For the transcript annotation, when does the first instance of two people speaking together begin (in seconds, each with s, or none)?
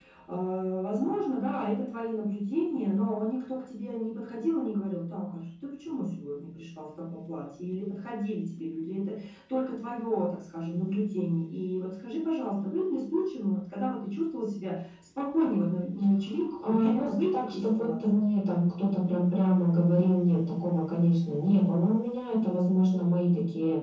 16.4 s